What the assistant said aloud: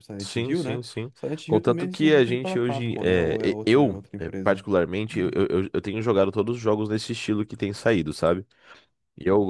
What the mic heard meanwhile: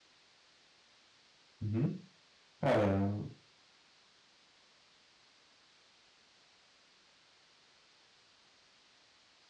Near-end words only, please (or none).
Uhum. Cara.